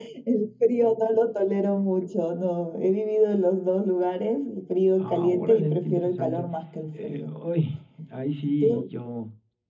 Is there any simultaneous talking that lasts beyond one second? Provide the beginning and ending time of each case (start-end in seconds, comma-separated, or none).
5.0-6.5